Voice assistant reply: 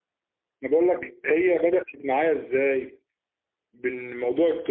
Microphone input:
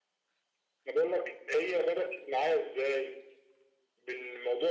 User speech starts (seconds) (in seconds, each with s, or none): none